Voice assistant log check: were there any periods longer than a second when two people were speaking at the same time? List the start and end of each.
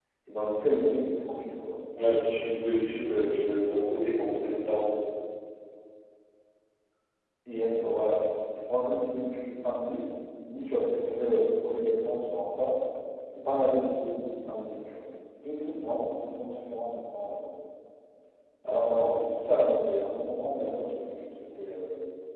none

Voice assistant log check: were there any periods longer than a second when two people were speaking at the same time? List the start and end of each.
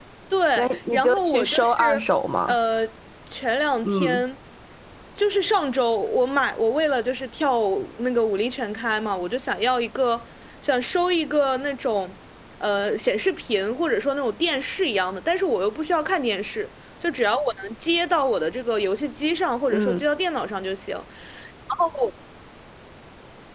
0.5-2.0

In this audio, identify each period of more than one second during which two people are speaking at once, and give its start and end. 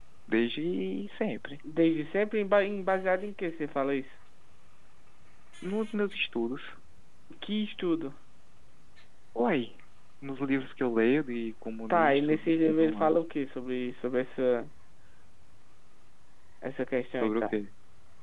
11.9-13.1

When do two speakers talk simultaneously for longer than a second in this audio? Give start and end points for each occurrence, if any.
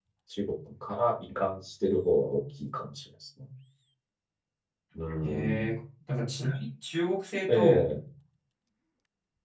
none

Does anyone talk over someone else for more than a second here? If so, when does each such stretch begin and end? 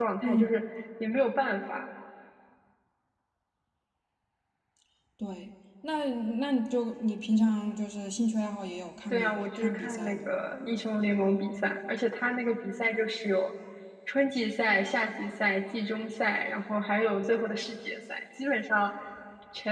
9.1-10.3

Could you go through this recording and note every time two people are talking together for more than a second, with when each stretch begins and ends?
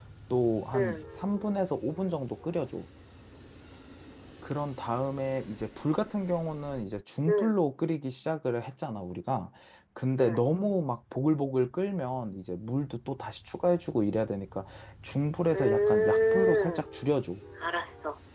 15.5-16.8

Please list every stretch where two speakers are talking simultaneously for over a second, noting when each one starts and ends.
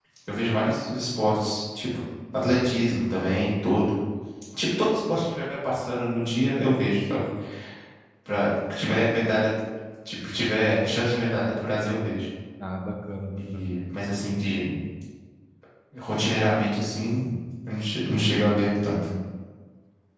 none

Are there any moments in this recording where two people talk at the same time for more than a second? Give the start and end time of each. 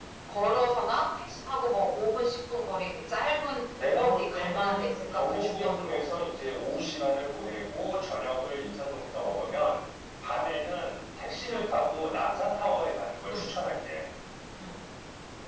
4.0-6.0

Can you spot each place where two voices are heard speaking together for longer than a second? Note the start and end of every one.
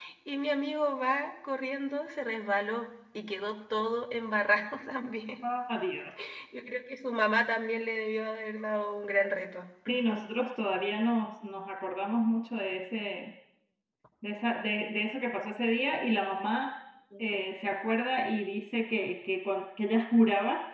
none

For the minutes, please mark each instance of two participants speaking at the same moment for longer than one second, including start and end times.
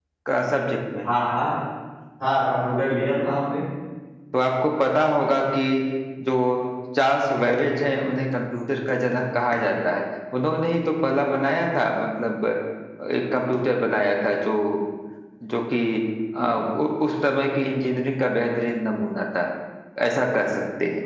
none

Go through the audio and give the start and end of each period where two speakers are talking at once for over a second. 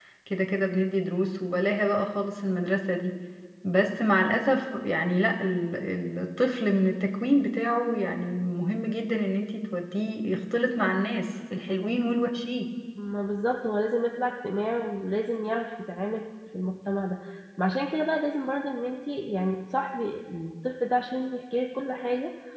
none

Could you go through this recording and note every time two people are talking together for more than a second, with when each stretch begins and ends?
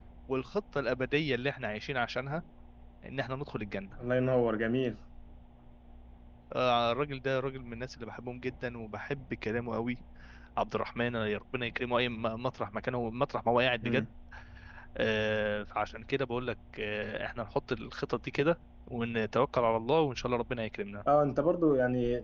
none

